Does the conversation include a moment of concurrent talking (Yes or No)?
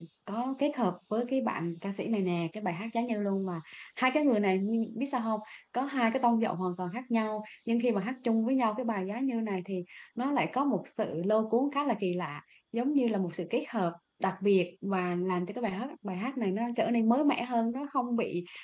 No